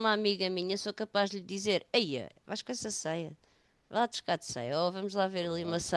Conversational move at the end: listening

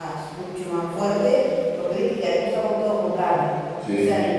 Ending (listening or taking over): listening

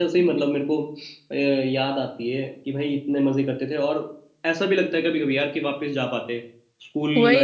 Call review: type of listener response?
taking over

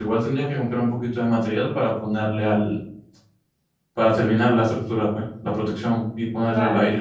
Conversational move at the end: listening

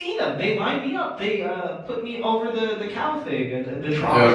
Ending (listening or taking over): taking over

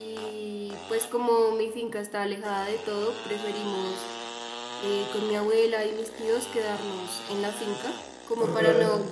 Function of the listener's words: listening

